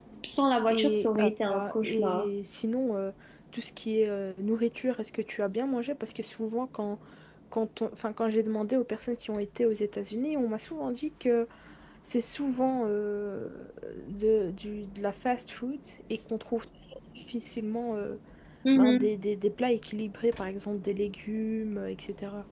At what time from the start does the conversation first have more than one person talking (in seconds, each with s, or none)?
0.7 s